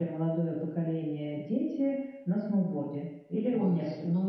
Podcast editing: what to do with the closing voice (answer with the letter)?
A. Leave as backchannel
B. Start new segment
B